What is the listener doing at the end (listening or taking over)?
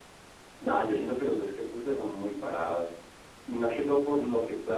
listening